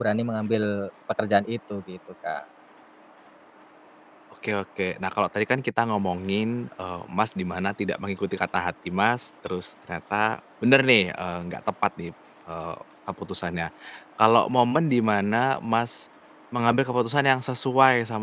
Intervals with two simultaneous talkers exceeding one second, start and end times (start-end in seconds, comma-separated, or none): none